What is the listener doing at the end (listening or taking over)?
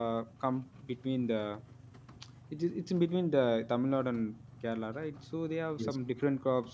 listening